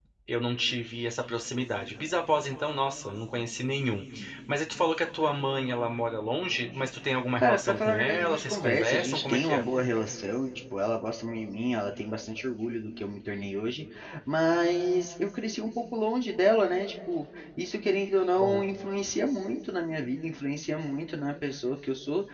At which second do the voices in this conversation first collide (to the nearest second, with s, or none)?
7 s